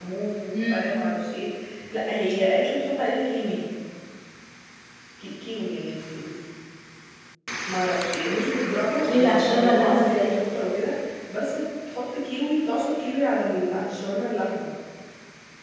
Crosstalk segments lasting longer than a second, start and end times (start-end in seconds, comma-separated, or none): 9.0-10.5